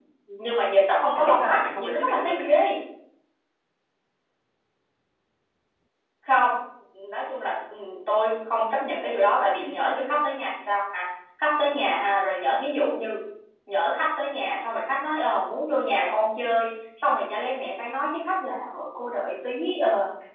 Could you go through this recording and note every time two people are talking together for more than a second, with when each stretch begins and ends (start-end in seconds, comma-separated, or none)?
1.1-2.5